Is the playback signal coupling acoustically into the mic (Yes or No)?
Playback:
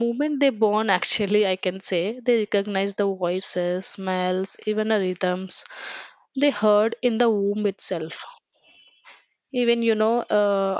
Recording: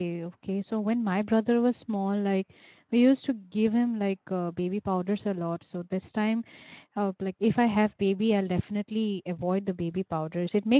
No